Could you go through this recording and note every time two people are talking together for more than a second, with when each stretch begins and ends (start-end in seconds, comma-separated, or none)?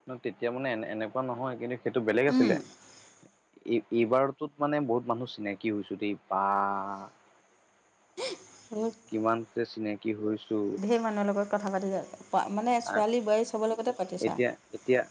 none